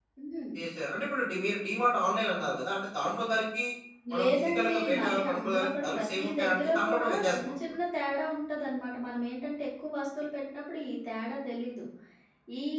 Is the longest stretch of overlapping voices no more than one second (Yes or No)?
No